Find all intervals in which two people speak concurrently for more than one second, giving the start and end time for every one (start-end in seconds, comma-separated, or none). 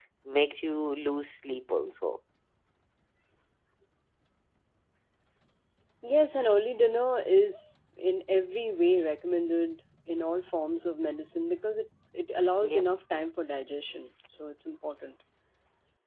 none